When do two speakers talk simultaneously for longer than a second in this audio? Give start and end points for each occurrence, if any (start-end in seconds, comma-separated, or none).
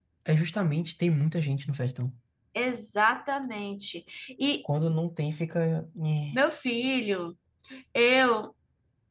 none